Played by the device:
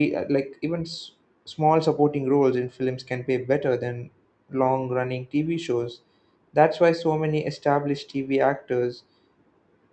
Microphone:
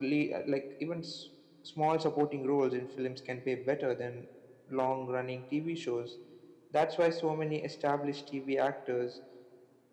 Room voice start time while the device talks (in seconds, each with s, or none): none